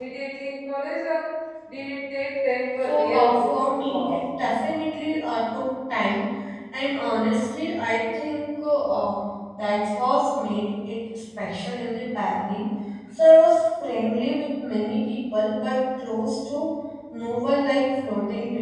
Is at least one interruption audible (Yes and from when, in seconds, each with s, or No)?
Yes, from 2.8 s